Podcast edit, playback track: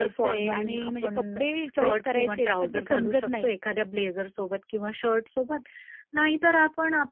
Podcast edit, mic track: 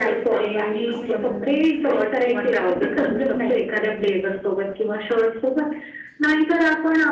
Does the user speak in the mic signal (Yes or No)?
No